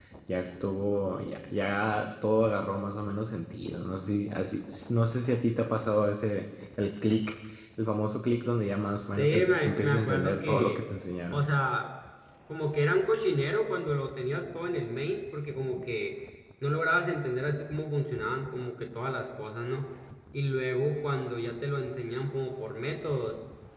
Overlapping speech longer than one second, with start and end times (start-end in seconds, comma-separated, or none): 9.2-10.8